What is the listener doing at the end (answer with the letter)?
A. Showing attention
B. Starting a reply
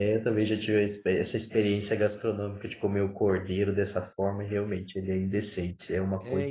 B